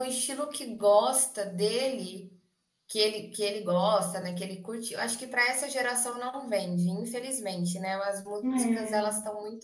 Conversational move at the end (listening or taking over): listening